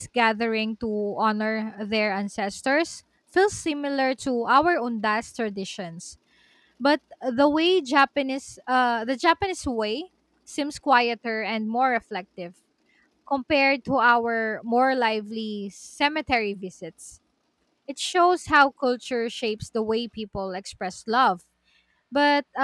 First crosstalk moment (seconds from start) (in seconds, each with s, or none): none